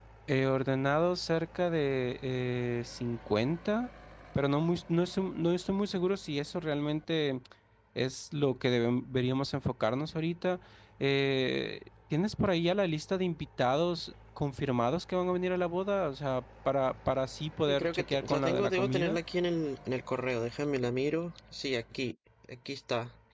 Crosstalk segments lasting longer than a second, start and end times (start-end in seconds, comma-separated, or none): 17.7-19.2